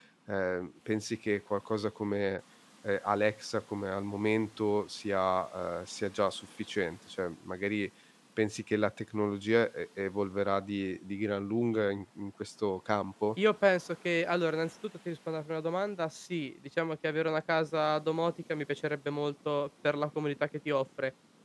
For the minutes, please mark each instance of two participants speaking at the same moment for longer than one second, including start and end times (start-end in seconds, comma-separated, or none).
none